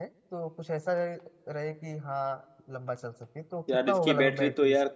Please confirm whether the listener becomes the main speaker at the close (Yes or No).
Yes